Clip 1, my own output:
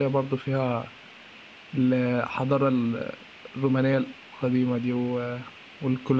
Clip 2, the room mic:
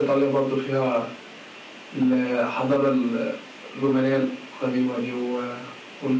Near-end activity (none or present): none